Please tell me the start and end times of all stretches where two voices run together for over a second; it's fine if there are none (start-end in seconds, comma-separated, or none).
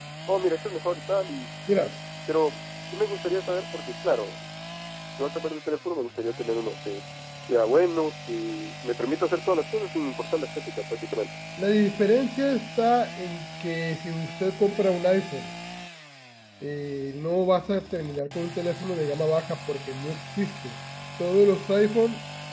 none